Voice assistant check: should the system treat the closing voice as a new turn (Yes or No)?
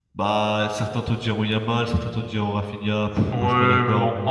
Yes